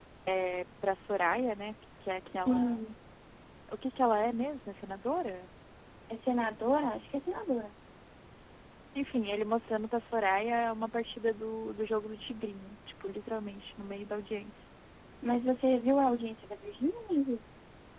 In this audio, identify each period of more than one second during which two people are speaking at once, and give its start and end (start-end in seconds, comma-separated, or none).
none